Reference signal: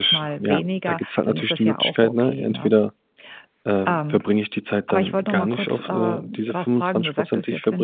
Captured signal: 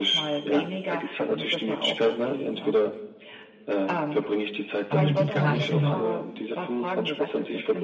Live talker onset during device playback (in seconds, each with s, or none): 4.9 s